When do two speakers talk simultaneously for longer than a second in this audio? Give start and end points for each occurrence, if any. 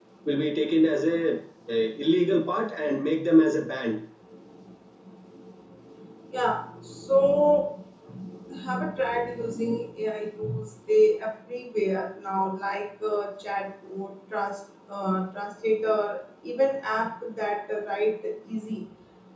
none

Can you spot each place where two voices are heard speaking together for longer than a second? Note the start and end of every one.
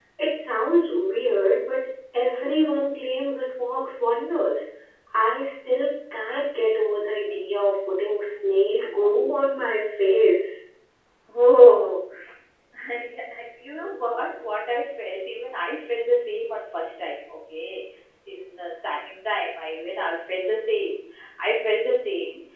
none

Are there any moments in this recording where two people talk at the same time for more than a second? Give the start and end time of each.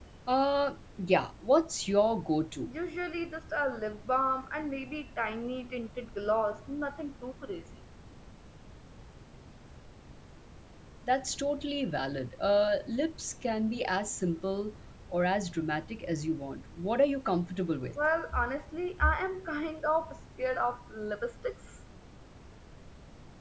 none

